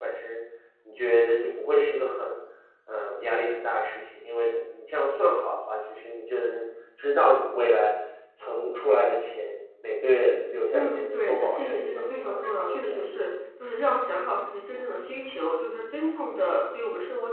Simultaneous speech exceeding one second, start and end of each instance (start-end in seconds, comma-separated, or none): 10.7-13.0